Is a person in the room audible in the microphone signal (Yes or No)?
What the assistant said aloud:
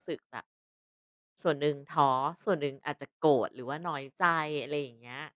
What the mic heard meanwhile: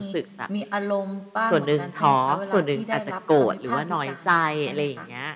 Yes